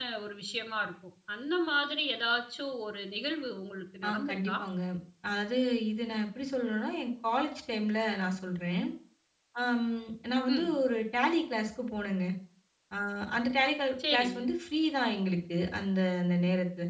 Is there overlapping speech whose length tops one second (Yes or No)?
No